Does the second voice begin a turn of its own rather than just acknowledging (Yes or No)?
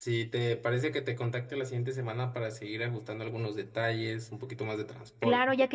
Yes